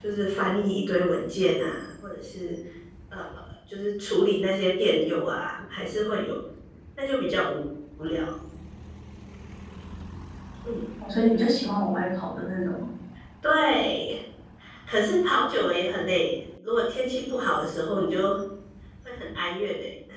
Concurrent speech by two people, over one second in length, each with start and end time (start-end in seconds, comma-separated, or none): none